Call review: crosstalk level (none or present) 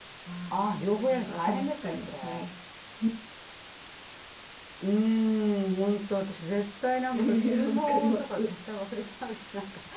present